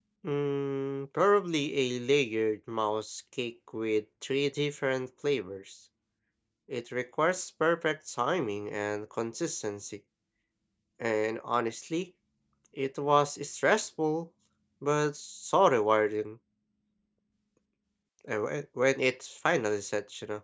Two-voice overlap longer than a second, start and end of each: none

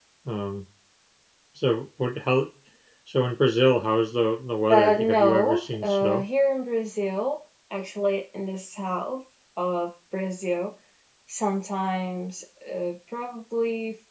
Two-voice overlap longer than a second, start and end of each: 4.7-6.2

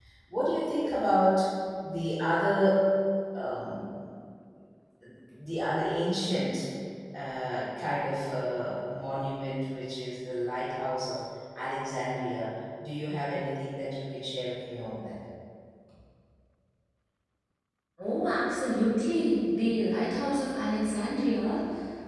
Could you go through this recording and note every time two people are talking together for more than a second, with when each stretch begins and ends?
none

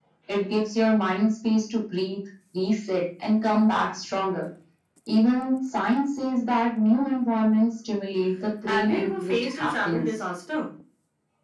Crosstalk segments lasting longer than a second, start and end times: 8.6-10.2

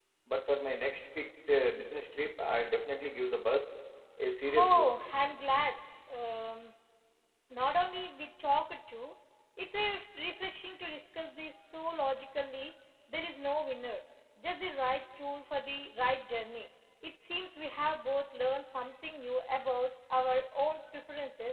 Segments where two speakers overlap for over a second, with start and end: none

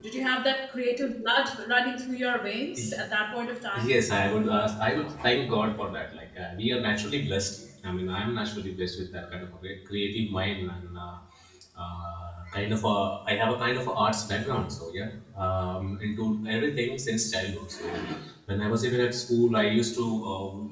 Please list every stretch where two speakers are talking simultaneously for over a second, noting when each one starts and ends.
none

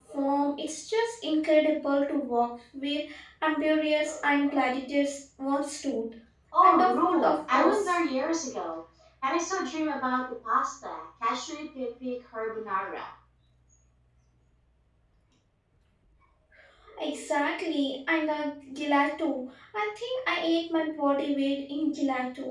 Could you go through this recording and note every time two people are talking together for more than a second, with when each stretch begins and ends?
6.6-7.9

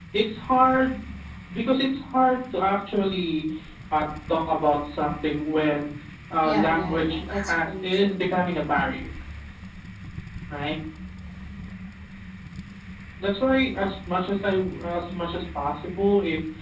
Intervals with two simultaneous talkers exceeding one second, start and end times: 6.4-8.2

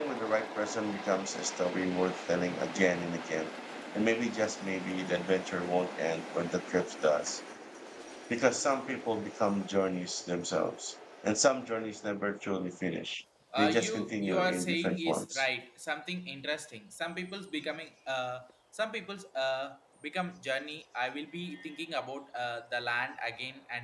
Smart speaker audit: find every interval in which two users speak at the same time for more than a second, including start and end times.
13.6-15.4

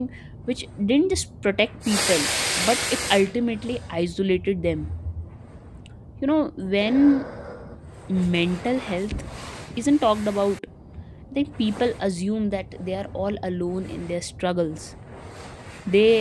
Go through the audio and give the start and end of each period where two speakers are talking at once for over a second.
none

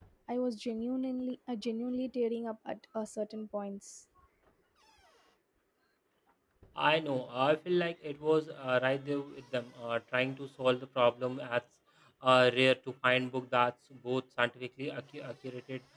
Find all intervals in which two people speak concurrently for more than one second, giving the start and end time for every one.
none

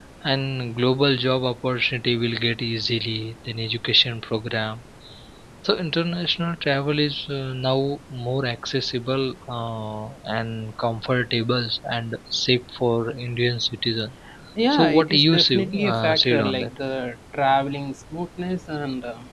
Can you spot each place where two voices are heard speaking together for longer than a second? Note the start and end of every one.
14.7-16.7

